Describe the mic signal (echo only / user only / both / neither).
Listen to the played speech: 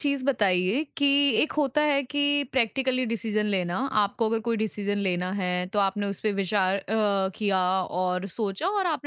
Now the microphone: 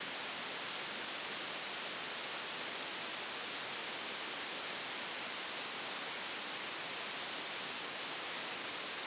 neither